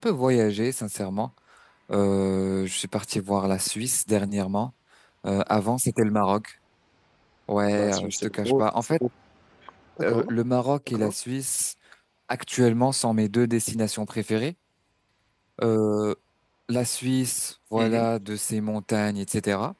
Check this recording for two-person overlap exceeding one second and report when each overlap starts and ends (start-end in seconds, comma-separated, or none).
7.8-9.0